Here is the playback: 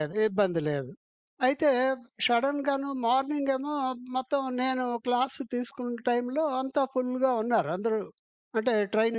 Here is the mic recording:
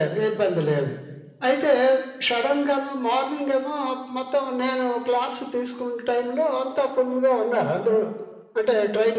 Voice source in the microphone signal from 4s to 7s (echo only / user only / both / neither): echo only